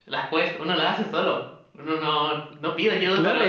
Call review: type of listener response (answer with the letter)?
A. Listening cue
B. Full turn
B